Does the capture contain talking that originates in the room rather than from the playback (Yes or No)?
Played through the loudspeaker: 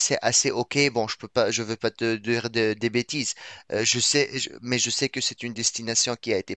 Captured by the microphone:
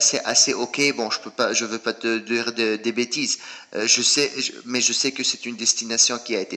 No